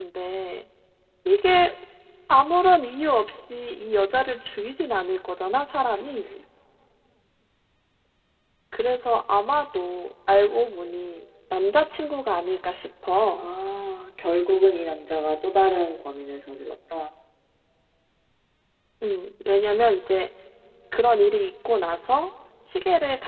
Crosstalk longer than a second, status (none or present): none